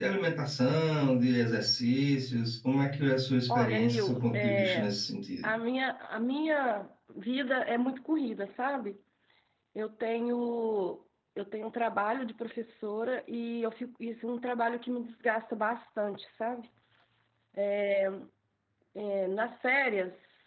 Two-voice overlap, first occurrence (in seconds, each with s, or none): 3.5 s